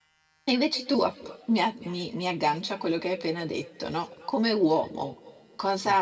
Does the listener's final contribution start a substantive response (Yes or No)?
No